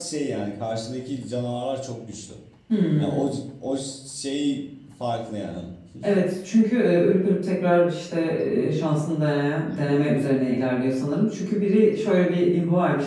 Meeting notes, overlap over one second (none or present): none